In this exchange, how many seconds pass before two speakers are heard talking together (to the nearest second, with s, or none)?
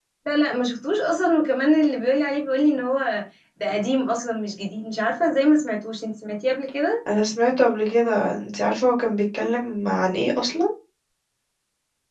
none